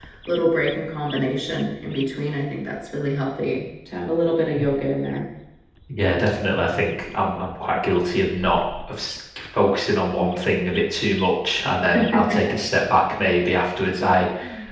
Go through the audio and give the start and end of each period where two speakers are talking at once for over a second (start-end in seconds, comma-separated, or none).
none